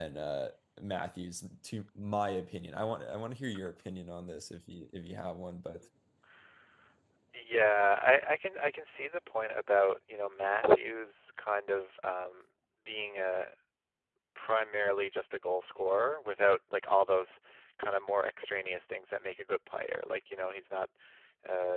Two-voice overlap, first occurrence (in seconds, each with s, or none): none